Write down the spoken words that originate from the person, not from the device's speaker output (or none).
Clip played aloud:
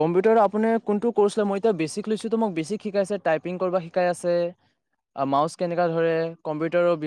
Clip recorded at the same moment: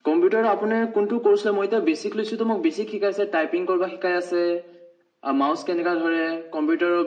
none